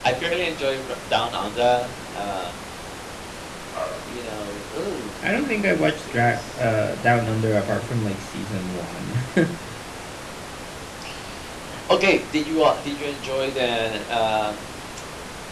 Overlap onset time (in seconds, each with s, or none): 5.2 s